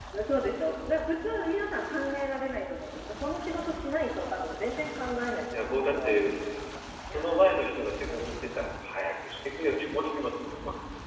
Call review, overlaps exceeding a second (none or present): present